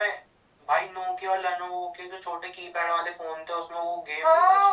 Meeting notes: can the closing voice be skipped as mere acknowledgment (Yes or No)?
No